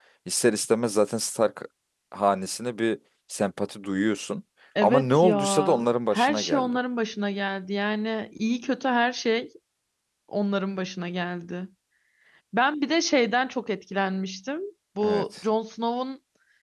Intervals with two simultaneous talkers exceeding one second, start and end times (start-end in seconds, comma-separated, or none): 4.8-6.8